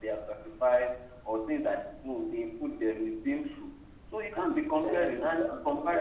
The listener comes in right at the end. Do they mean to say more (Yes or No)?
Yes